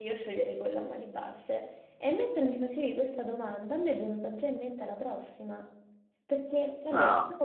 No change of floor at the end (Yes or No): Yes